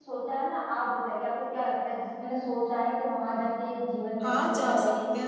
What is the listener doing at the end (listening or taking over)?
taking over